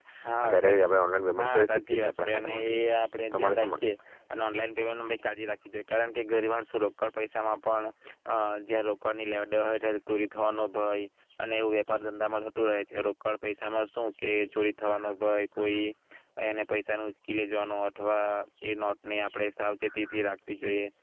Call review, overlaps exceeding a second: present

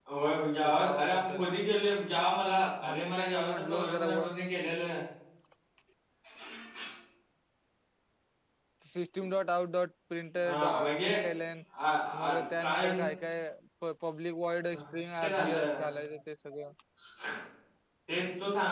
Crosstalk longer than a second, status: present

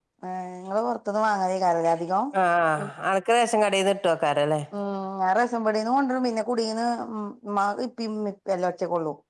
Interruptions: none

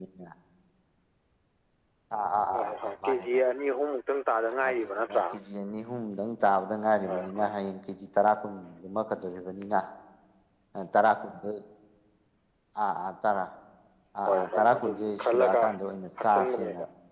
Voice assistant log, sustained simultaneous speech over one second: present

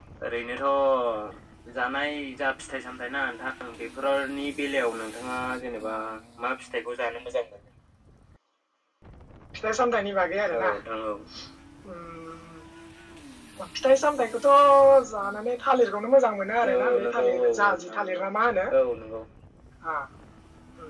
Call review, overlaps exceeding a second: present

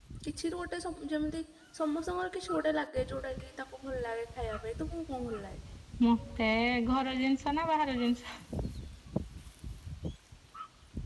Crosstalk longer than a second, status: none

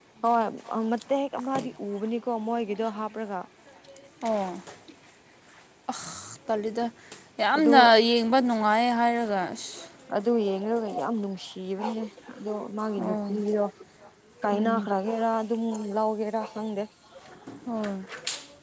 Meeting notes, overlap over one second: none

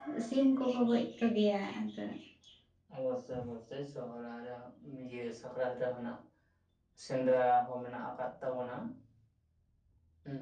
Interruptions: none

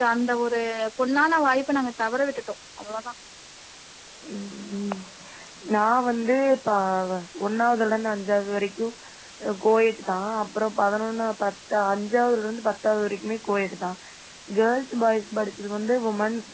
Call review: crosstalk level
none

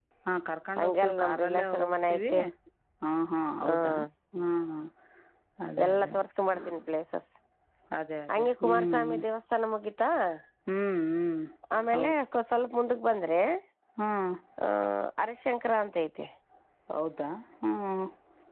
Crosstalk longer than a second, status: present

